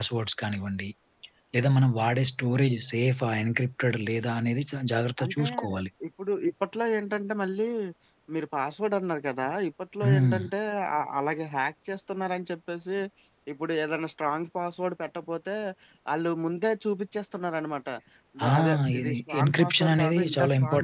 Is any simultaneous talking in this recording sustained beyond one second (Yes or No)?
Yes